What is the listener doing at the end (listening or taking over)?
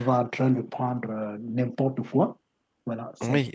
taking over